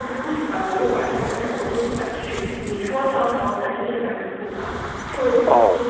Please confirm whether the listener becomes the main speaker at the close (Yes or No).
Yes